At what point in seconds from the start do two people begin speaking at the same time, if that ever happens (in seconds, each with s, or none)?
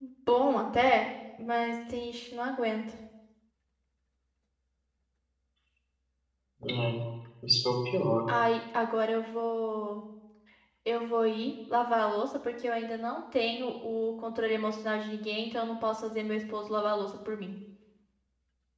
none